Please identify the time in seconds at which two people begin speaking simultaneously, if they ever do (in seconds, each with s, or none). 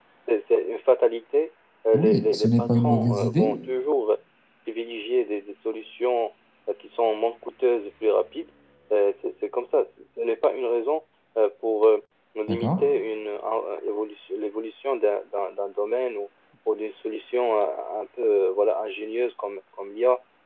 1.9 s